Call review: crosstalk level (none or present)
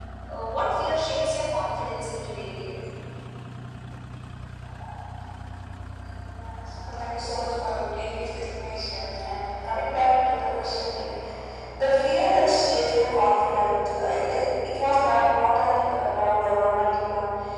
none